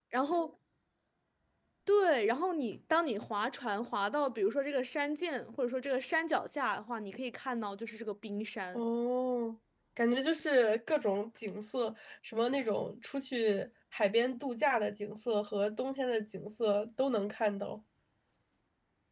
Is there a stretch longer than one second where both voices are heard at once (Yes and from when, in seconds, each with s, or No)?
No